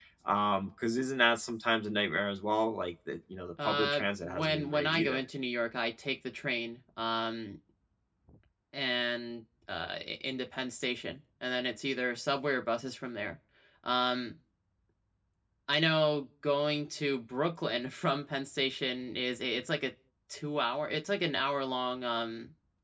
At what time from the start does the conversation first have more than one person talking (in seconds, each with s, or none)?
3.6 s